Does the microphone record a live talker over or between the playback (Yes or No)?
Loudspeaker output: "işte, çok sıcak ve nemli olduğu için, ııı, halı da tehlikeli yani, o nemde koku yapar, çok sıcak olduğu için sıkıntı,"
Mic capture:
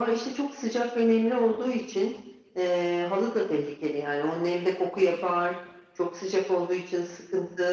No